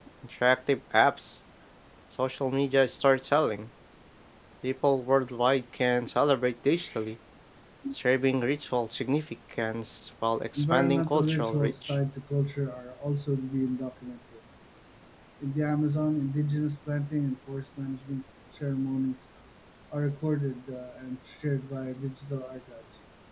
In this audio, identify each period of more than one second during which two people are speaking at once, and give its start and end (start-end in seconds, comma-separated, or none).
10.6-11.9